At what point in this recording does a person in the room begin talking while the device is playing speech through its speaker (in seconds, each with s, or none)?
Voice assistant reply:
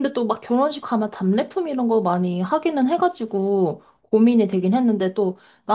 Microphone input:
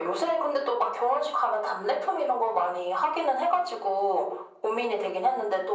none